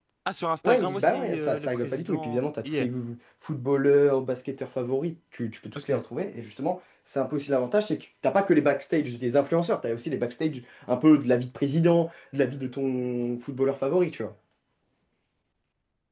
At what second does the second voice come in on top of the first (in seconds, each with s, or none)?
0.6 s